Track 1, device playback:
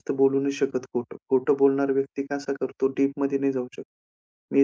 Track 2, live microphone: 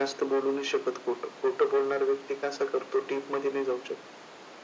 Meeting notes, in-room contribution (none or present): none